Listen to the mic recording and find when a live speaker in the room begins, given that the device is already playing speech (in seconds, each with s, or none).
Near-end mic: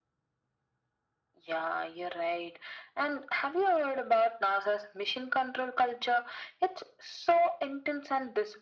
none